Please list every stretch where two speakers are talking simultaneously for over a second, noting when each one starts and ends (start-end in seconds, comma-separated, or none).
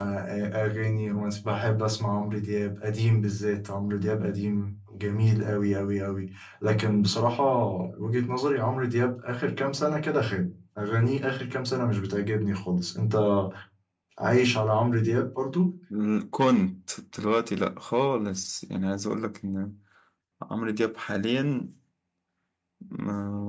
none